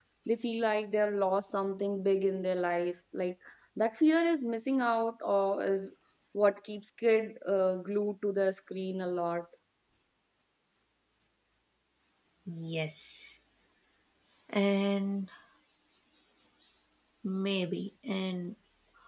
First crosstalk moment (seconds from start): none

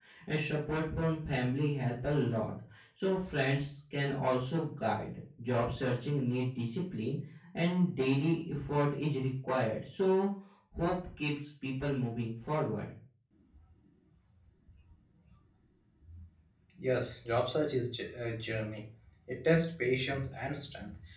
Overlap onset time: none

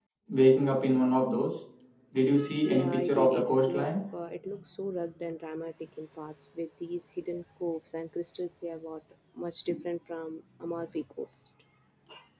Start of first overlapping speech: 2.7 s

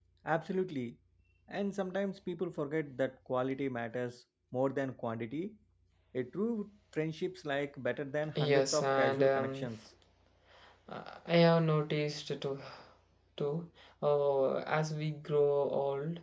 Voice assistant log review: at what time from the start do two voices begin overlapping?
8.3 s

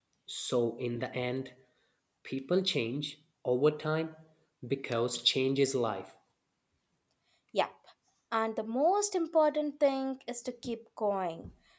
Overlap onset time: none

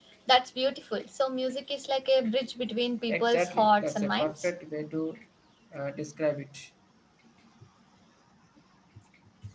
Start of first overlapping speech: 3.1 s

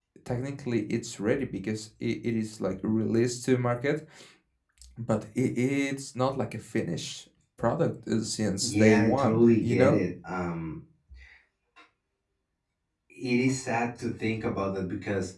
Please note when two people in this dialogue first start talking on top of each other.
8.6 s

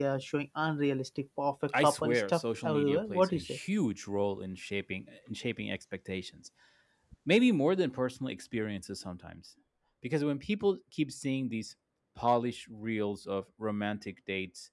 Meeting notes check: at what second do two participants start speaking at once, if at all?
1.7 s

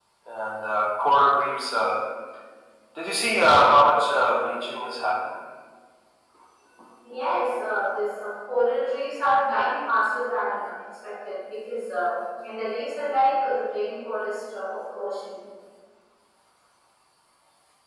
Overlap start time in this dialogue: none

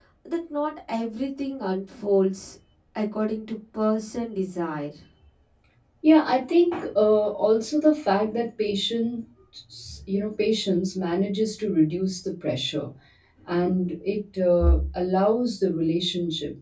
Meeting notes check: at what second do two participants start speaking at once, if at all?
none

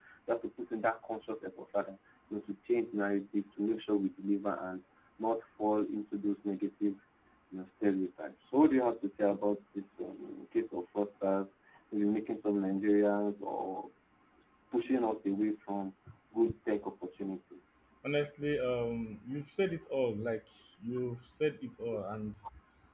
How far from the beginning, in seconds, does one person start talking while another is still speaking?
none

